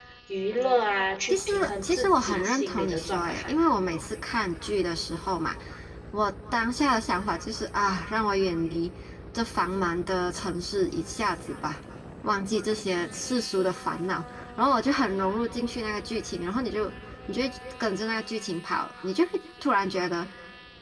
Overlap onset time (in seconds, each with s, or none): 1.3 s